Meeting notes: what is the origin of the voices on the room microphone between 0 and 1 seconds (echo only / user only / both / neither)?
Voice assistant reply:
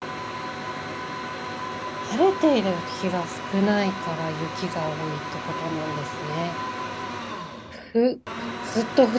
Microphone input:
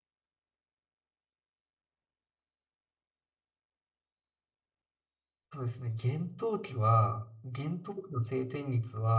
neither